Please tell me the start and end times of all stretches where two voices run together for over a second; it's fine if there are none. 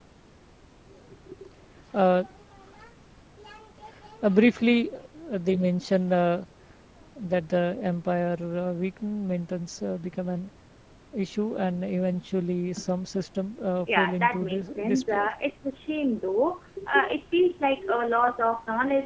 14.0-15.3

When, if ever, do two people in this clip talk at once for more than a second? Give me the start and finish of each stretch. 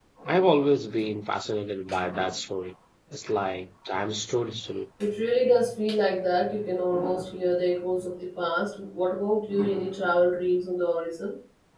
none

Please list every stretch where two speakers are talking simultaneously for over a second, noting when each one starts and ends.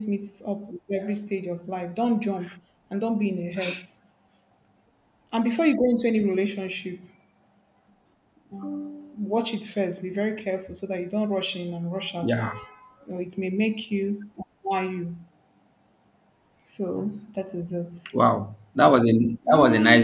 none

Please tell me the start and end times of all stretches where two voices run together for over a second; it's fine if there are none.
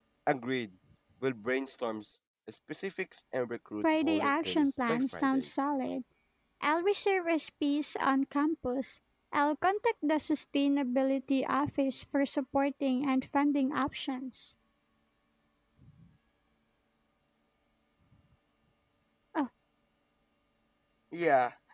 3.8-5.5

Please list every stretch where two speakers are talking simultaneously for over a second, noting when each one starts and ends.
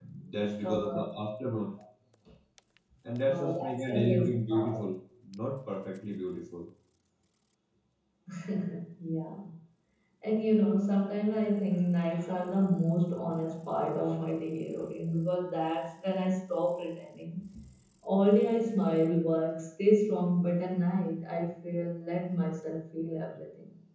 3.3-4.8

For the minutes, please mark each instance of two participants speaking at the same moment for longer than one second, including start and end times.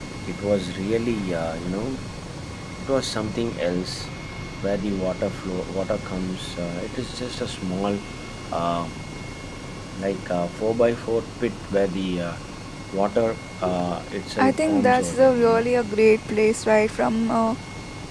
14.4-15.7

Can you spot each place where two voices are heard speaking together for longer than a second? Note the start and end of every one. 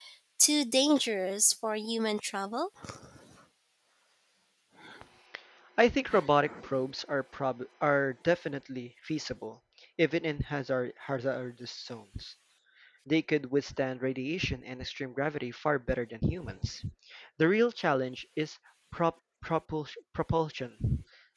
none

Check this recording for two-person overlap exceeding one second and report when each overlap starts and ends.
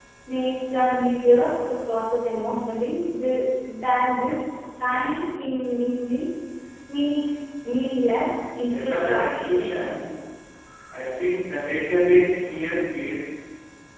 8.7-10.0

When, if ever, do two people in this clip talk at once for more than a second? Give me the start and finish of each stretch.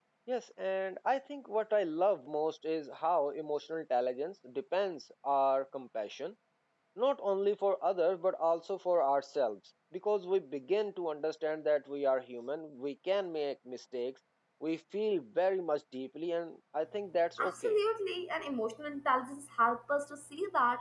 none

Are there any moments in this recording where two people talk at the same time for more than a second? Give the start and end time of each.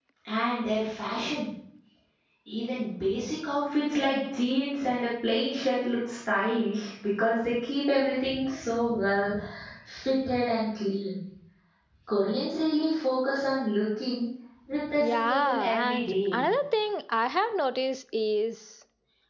15.0-16.4

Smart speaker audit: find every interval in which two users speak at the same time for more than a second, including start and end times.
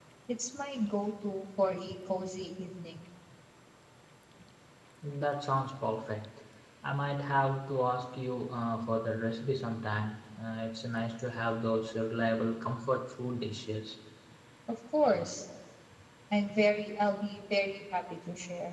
none

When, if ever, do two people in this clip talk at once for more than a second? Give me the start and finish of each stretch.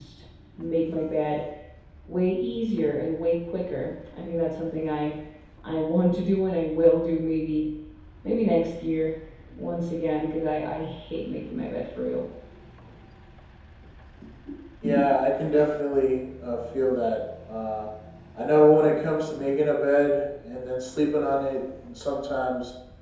none

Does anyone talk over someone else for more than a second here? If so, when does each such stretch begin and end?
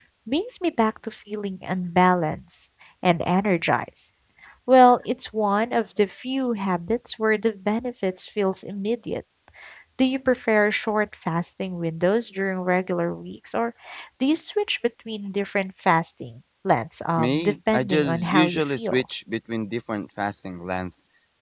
17.2-19.0

